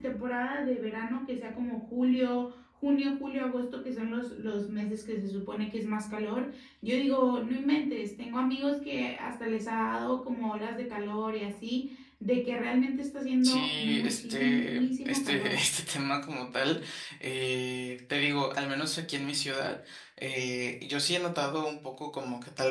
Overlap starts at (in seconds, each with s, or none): 13.4 s